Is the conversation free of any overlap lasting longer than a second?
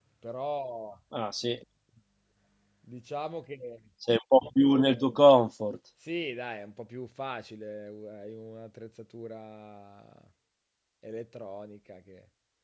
Yes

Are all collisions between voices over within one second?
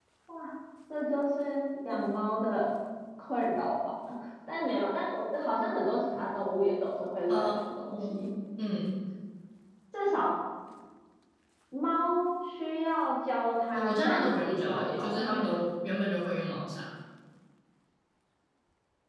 No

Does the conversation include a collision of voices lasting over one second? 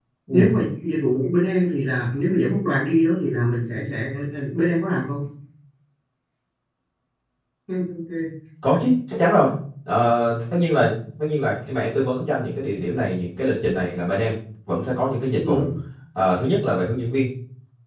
No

